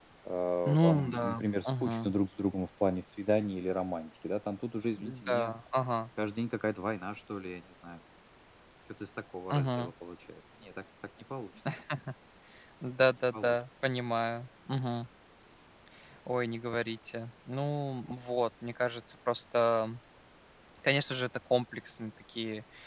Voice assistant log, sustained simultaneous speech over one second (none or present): present